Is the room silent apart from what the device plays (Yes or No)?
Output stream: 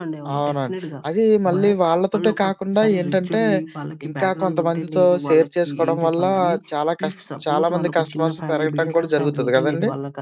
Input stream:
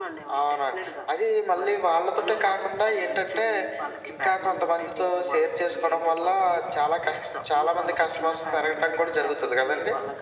Yes